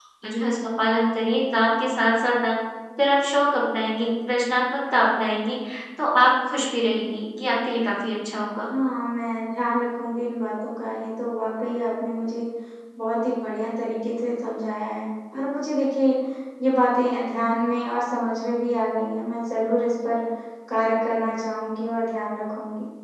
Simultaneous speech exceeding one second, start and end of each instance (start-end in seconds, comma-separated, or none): none